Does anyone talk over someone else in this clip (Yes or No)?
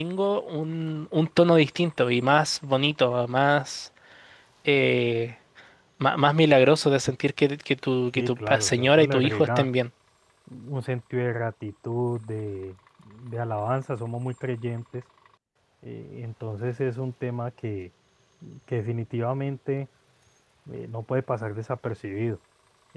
Yes